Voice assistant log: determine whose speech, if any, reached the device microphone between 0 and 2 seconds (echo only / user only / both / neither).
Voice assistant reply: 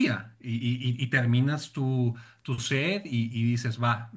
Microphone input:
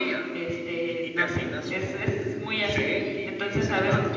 both